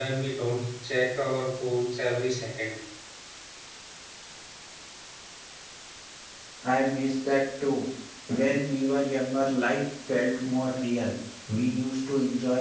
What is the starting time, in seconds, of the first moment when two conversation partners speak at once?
none

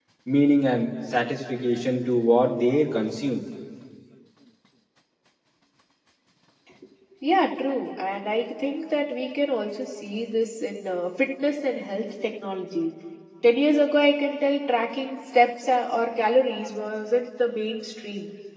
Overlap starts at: none

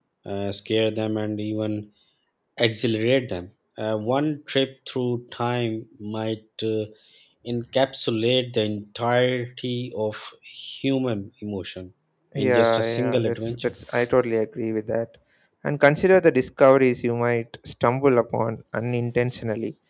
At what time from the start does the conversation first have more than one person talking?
12.4 s

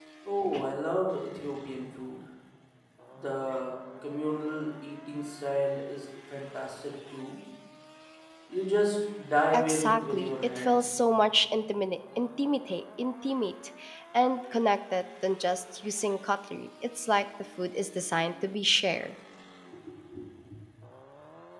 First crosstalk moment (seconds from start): 9.5 s

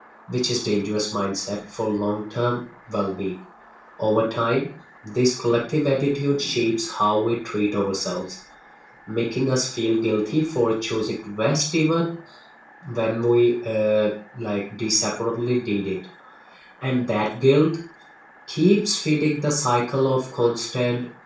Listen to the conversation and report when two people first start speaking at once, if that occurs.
none

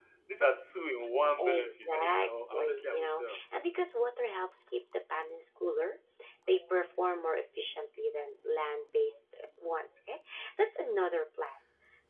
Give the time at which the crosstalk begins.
1.4 s

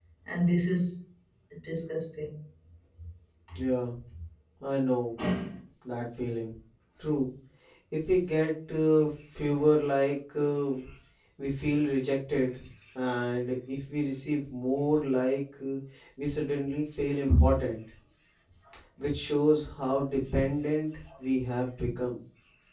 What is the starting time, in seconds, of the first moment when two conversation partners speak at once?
none

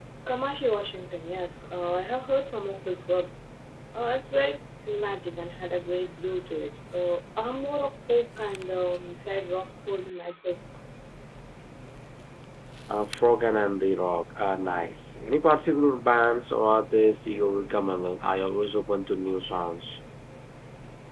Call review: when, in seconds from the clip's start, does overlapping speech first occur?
none

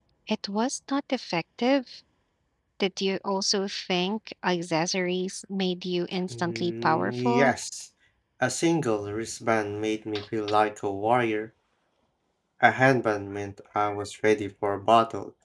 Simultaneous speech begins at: 6.3 s

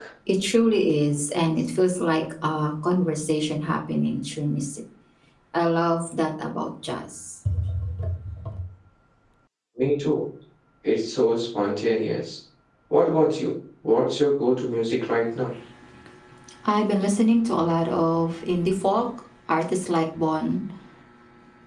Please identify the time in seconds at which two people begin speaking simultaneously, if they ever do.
none

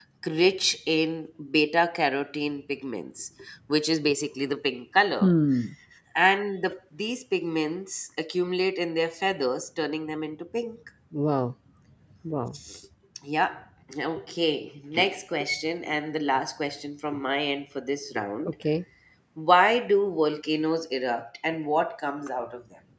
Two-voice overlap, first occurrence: none

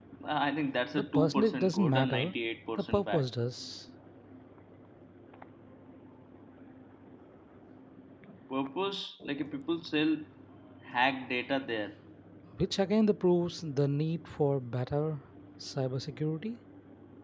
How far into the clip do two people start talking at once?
0.9 s

